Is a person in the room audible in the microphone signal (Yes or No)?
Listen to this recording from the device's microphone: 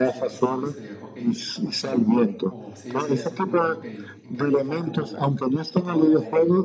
Yes